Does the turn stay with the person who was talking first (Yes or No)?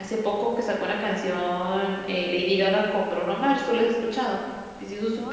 No